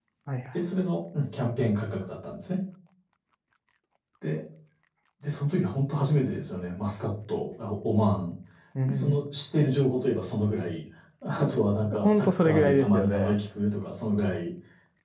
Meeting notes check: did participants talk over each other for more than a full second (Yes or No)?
Yes